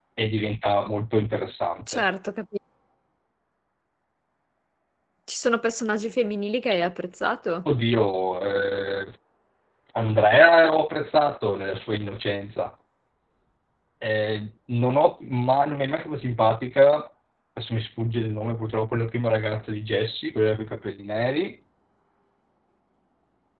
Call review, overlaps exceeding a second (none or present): none